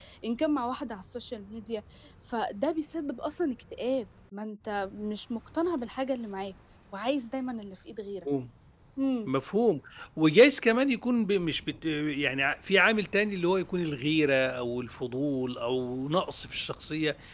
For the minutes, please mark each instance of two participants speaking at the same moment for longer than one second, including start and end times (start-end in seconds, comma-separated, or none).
none